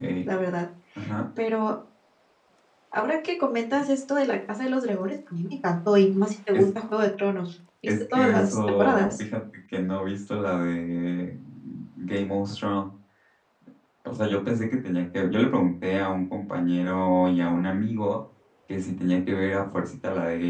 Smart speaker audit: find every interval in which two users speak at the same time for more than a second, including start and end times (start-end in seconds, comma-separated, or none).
7.9-9.2